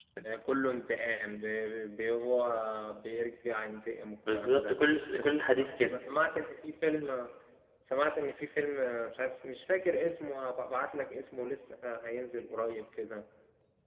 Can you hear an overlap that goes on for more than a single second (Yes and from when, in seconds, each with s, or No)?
No